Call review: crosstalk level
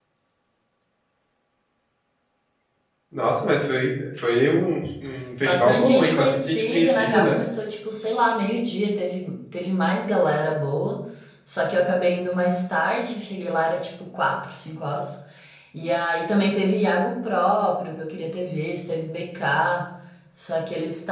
present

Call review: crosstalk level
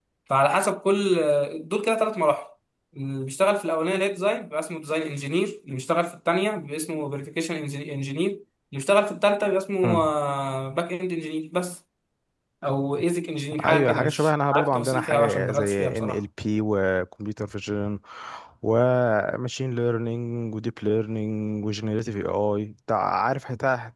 present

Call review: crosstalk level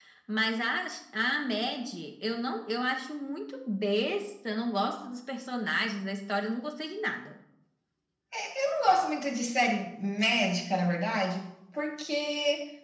none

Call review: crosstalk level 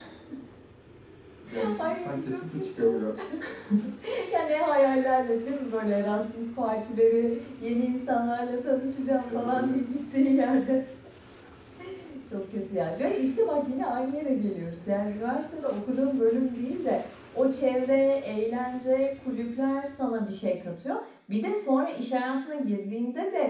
present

